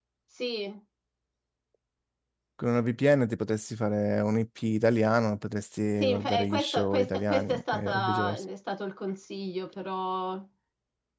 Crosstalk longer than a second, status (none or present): present